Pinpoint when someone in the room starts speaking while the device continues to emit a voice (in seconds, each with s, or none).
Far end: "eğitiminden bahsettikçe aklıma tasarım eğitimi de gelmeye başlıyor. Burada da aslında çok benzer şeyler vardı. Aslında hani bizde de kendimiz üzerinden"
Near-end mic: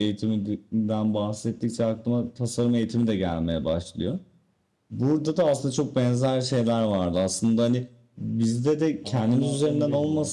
9.0 s